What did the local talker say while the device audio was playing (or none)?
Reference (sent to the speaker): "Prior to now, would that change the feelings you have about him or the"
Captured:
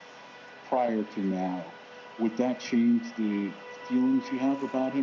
none